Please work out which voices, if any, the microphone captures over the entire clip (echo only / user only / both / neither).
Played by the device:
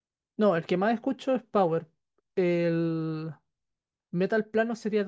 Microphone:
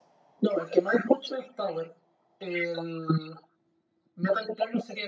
echo only